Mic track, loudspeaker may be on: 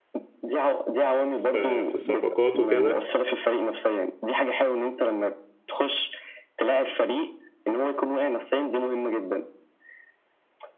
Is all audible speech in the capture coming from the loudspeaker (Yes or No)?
No